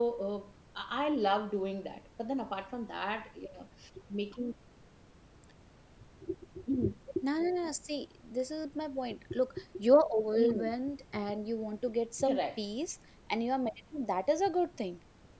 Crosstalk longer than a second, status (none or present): none